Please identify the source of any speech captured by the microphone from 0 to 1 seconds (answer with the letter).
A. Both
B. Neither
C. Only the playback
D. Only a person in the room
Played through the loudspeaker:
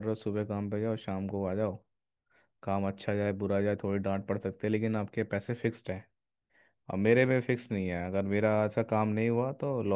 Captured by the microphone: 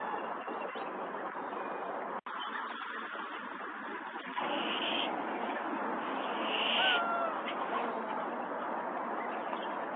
B